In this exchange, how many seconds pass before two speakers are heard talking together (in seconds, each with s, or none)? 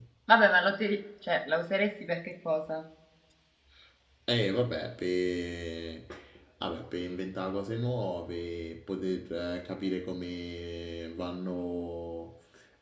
none